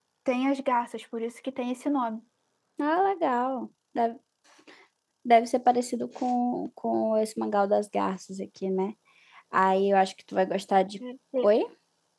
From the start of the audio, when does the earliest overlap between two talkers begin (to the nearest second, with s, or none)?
none